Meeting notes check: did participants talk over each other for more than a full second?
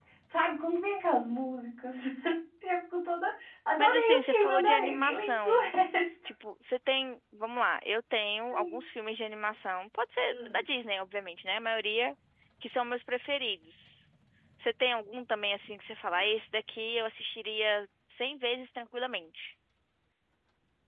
Yes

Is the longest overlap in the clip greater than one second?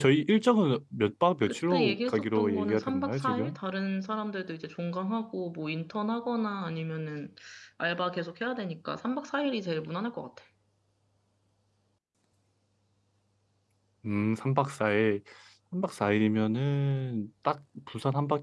Yes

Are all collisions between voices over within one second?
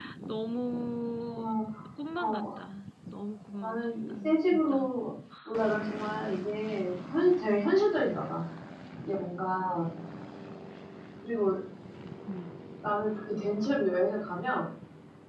No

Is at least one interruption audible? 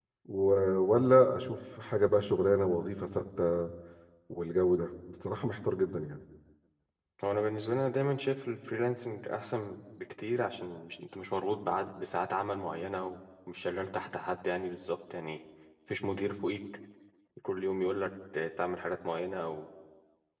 No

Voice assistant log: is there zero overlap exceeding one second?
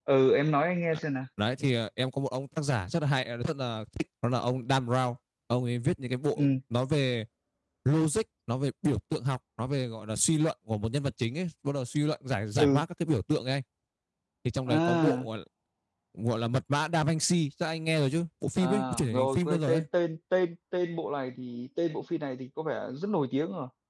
No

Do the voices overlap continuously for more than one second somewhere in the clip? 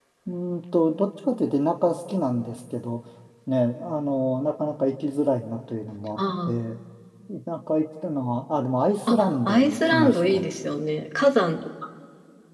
Yes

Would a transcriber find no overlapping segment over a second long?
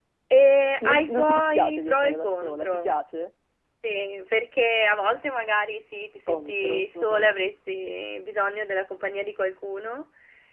No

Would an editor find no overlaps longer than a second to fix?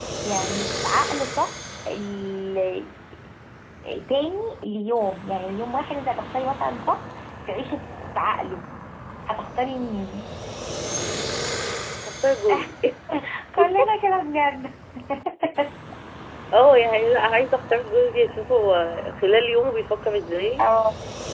Yes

